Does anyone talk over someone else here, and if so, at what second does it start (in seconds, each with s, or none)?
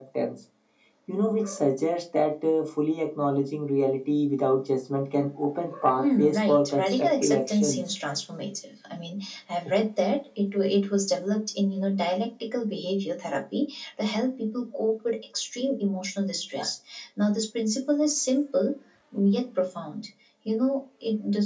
6.0 s